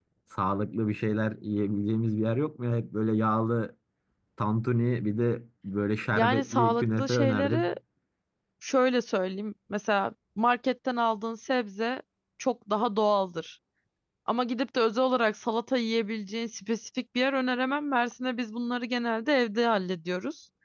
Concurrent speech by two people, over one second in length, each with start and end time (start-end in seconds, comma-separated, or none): 6.2-7.8